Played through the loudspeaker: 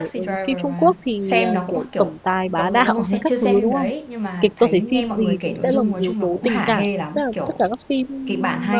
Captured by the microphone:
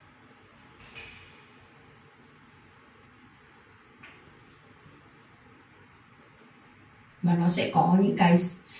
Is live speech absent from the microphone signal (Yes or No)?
No